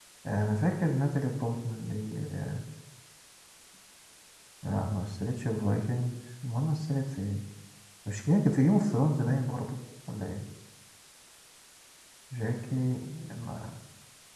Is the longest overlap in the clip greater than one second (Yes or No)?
No